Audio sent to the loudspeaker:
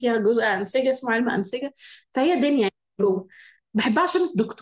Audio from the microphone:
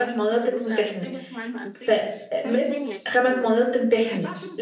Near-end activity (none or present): present